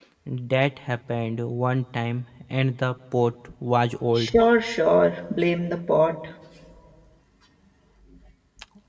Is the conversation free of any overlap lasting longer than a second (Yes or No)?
Yes